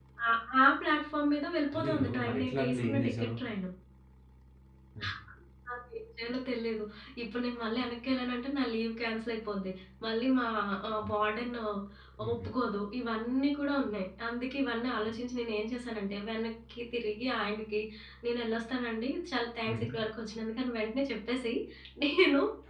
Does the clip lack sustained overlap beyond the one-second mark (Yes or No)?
No